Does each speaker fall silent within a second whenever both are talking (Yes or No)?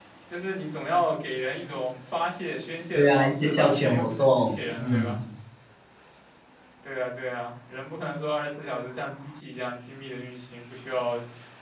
No